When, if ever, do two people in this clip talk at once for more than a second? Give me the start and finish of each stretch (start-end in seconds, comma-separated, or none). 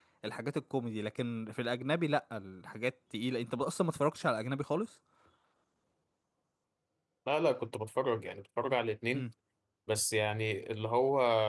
none